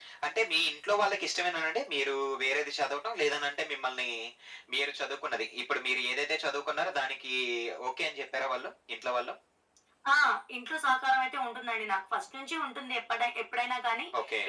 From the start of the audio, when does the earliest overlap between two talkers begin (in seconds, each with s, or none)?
none